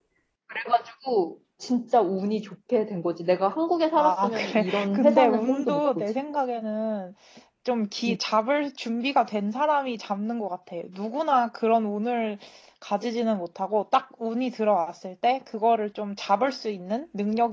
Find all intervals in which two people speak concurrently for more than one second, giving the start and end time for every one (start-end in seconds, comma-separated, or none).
4.0-6.0